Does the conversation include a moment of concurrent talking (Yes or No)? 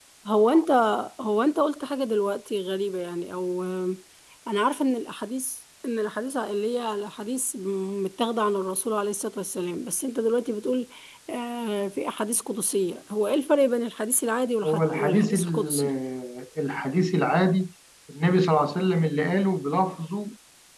Yes